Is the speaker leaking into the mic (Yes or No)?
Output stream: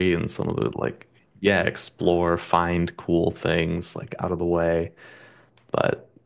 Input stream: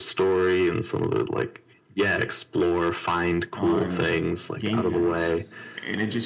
Yes